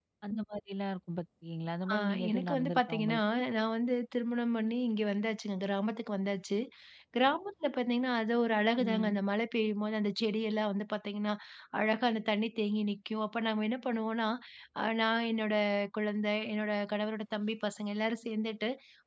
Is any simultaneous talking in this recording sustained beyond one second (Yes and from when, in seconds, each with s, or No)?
Yes, from 1.9 s